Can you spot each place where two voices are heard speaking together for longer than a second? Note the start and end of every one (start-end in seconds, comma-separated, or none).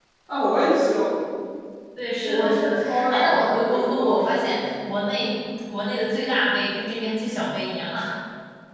2.2-5.1